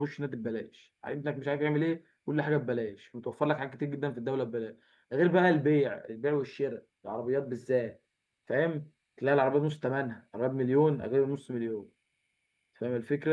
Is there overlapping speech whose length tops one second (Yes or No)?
No